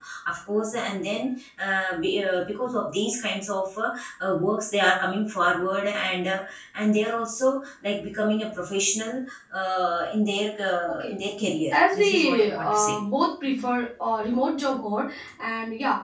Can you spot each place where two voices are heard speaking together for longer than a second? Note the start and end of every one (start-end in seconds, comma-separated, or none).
11.7-12.9